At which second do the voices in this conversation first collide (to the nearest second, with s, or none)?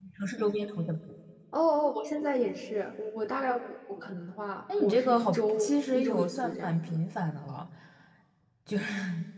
5 s